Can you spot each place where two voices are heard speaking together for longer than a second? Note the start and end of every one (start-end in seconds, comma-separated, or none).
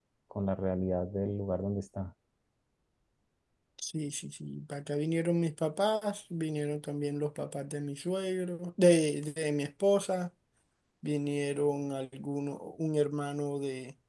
none